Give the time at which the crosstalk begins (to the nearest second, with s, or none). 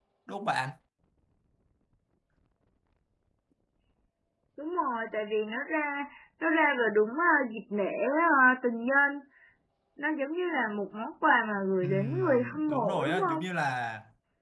12 s